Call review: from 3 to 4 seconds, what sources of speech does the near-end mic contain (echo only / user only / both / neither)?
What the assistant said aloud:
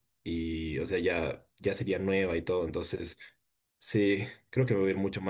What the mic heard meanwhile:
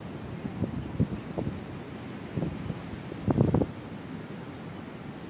neither